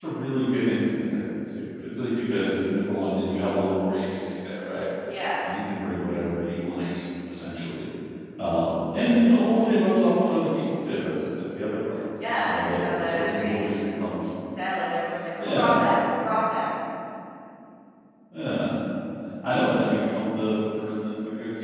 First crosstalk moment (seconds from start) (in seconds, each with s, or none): 12.4 s